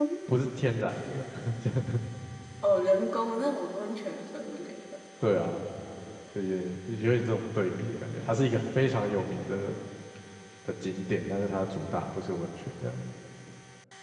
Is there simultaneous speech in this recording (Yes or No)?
No